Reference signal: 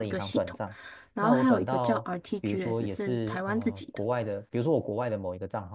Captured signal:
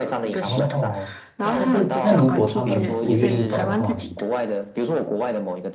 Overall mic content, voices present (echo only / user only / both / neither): both